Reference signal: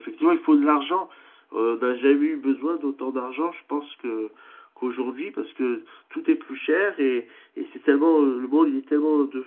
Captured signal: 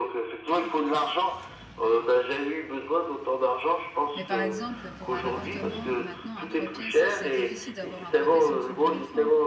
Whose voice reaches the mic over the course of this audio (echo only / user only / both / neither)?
both